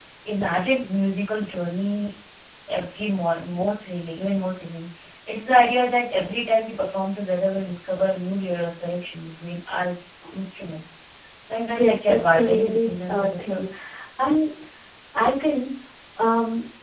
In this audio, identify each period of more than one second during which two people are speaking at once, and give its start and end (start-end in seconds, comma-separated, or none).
11.8-13.7